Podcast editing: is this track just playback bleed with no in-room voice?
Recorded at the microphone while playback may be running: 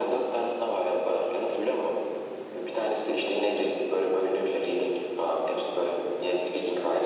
Yes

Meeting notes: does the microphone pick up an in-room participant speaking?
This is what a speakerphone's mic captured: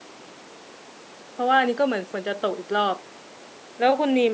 Yes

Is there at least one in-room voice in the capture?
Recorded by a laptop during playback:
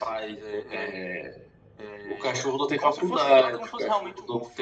No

